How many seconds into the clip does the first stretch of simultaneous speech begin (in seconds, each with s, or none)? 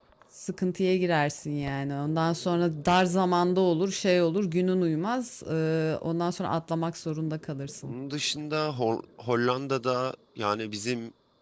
none